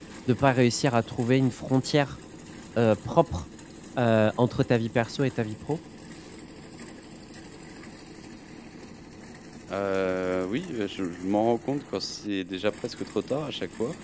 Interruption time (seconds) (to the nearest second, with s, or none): none